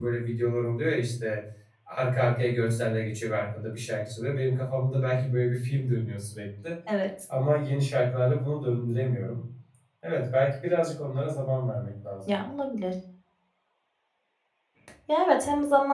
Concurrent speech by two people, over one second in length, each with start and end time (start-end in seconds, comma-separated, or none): none